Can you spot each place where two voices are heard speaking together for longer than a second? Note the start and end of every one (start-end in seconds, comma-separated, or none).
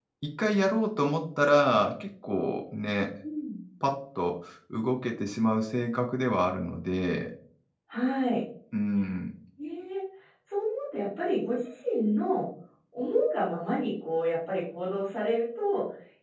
none